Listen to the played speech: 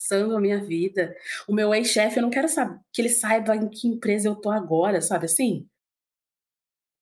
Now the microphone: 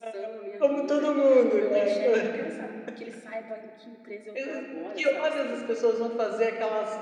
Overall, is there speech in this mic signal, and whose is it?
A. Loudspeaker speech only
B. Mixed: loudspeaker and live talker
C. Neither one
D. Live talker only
B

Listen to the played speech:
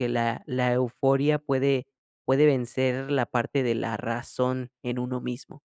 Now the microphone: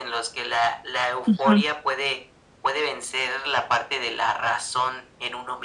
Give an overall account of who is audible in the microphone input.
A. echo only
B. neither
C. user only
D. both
D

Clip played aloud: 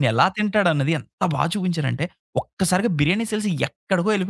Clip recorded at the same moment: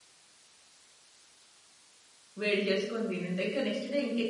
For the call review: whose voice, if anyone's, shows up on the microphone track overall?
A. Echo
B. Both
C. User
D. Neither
C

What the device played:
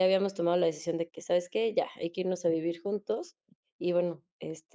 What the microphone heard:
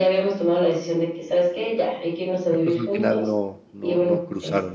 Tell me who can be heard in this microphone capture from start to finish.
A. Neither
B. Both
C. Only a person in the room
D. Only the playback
B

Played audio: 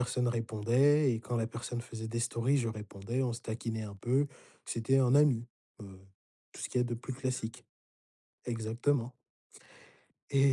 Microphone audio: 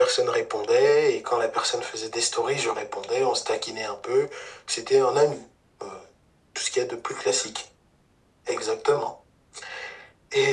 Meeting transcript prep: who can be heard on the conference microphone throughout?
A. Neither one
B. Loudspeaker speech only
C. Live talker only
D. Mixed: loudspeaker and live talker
B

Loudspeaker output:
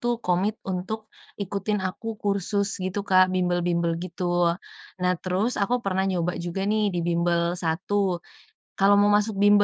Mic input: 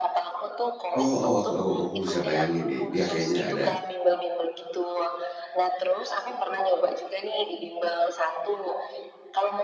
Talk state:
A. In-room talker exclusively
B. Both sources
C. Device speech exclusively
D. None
B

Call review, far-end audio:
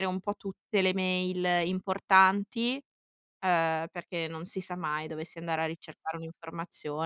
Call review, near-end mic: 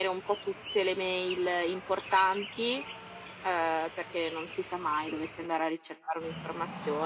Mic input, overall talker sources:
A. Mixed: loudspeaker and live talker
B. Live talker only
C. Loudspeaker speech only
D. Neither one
C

